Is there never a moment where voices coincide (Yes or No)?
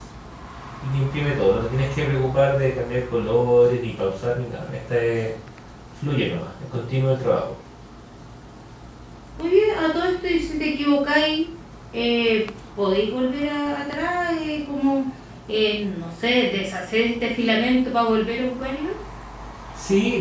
Yes